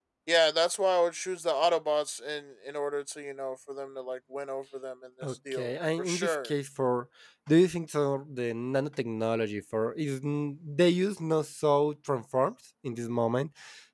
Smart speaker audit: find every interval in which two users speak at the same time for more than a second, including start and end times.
5.2-6.5

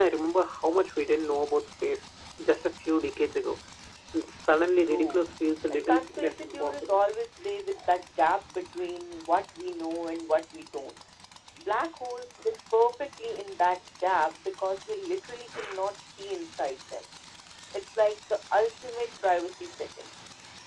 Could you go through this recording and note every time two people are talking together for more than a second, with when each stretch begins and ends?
5.7-7.0

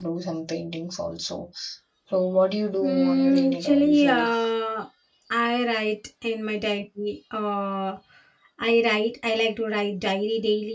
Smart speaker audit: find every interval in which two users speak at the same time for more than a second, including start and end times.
2.8-4.3

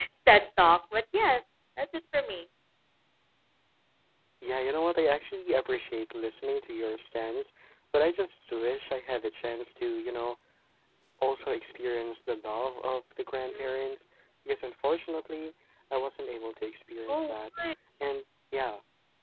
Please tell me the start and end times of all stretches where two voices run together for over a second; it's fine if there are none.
none

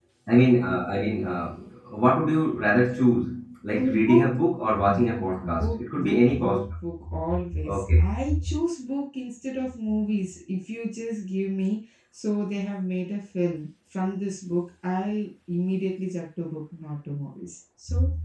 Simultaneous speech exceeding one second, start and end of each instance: 4.9-6.7

